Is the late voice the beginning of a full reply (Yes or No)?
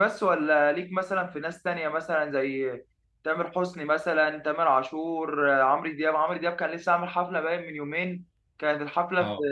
No